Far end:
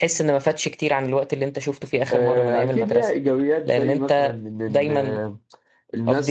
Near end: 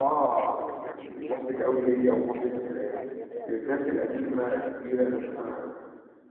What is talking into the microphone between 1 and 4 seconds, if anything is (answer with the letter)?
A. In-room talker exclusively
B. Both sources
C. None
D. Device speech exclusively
B